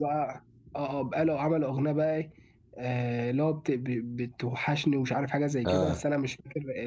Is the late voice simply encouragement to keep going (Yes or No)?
Yes